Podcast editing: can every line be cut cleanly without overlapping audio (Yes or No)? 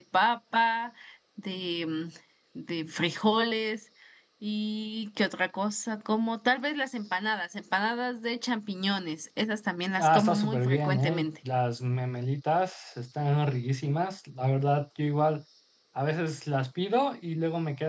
No